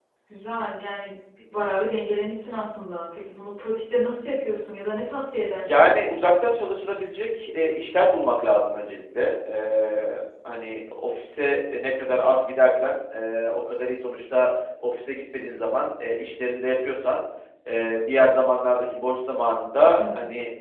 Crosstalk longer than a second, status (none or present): none